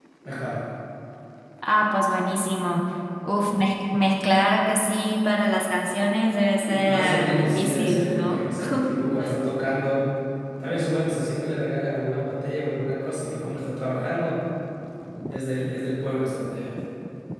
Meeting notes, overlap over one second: present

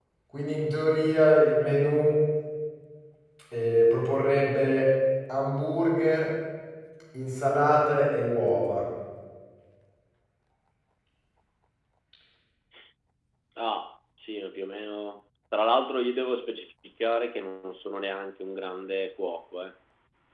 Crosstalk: none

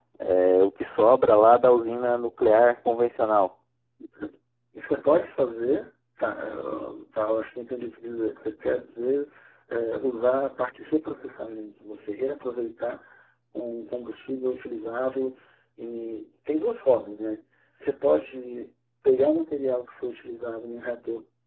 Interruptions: none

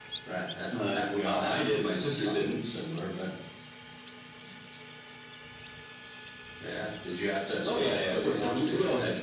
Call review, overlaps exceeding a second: present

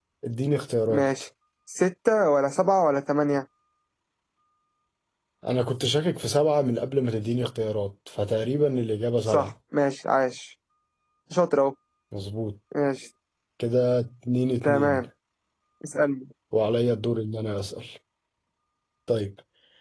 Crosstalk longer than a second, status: none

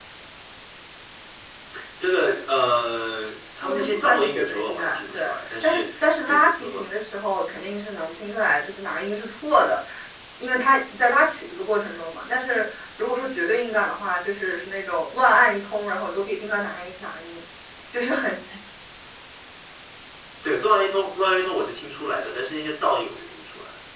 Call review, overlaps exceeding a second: present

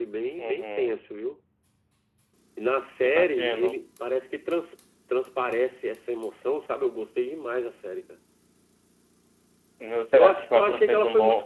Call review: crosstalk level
present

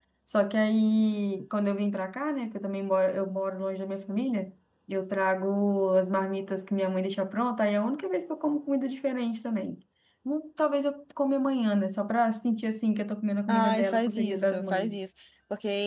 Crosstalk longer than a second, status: present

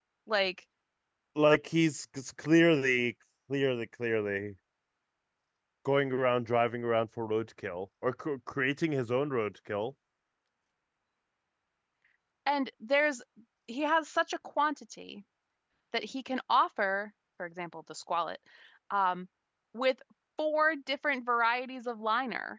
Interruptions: none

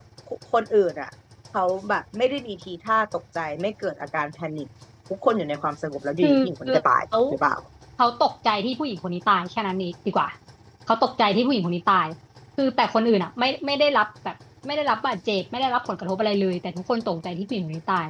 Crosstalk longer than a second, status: none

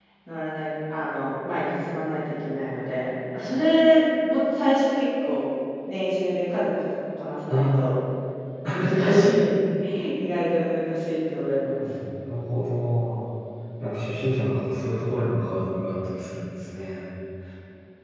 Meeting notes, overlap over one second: none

